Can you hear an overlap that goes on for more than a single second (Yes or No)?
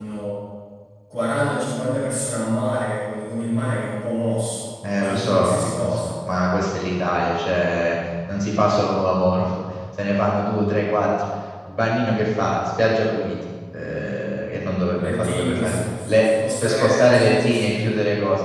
Yes